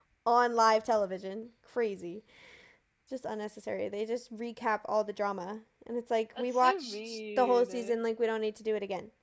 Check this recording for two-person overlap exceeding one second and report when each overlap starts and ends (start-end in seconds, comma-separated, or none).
6.4-8.0